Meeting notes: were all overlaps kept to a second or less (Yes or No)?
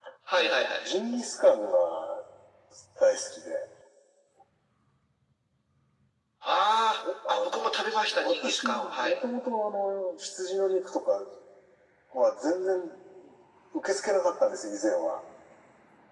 No